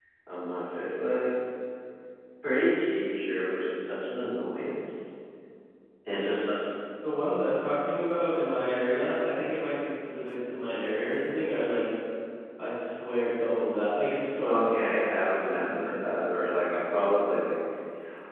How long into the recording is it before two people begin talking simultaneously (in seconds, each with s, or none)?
14.4 s